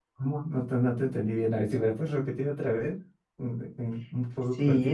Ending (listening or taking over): taking over